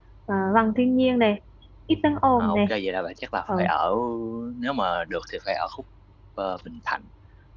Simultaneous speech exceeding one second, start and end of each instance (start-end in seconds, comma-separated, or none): none